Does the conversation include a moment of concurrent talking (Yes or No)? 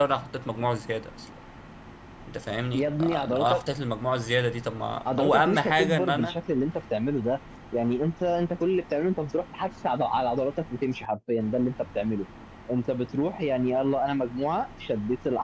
Yes